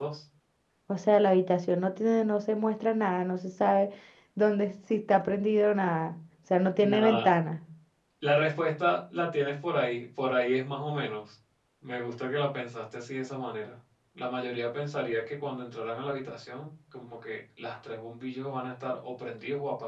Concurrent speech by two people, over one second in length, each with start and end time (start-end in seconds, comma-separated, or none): none